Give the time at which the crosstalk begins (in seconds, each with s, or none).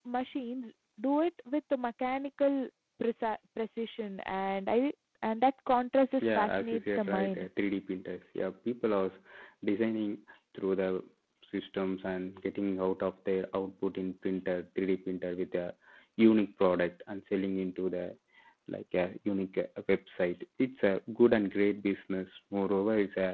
6.2 s